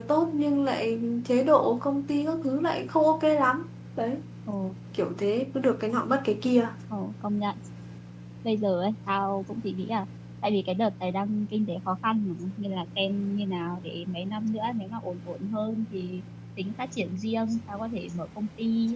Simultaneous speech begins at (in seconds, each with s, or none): none